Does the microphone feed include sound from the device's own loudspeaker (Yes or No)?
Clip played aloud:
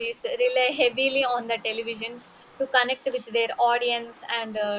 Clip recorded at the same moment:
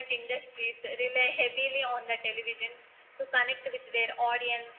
Yes